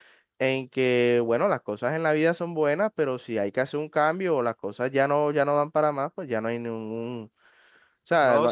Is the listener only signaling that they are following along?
No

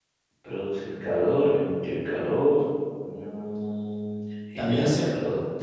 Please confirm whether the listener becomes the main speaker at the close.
Yes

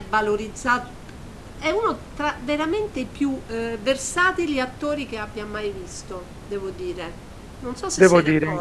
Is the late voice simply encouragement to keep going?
No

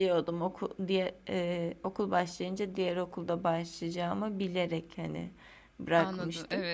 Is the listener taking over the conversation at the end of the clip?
Yes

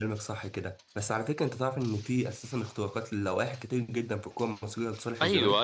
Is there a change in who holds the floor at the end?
Yes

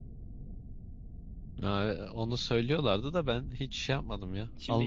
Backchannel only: No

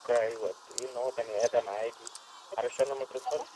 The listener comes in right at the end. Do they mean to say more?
Yes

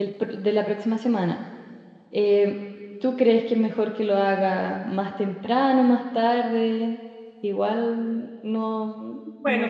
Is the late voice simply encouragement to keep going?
No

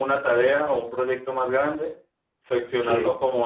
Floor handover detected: No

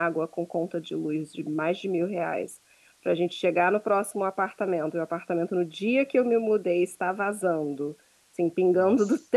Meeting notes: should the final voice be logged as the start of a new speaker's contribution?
No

